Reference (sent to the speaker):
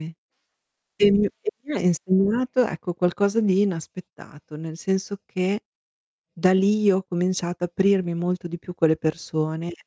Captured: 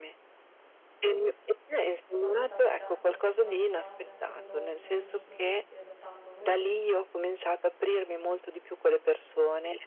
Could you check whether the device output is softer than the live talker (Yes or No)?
No